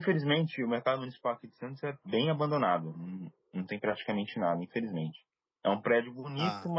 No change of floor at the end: Yes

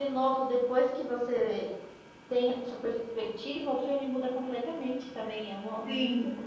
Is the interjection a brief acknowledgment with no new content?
No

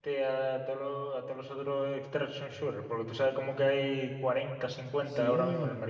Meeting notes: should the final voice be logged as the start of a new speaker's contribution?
Yes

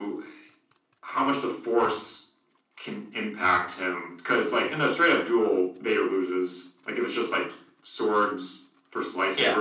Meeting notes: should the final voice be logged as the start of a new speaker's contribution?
Yes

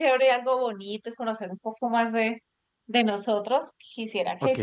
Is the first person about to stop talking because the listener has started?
No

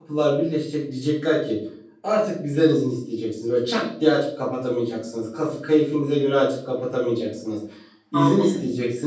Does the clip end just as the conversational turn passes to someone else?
No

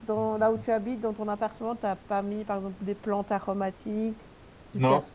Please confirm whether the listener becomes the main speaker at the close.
Yes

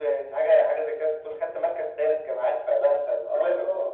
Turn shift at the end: Yes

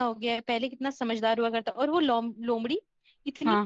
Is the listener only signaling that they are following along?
Yes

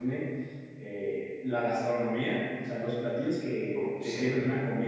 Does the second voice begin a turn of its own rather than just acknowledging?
No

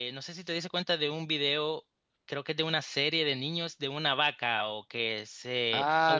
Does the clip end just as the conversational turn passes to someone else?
Yes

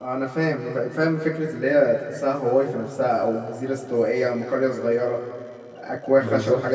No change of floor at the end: Yes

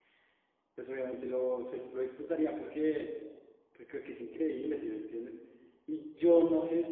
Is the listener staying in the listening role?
Yes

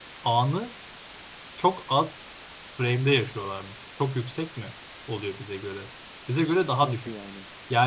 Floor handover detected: No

